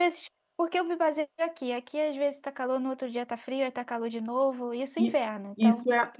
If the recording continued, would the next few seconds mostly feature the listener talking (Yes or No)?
Yes